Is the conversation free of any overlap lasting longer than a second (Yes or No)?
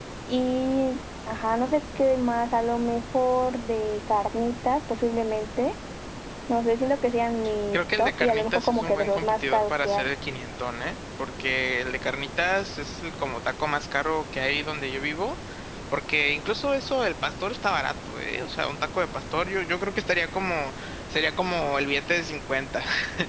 No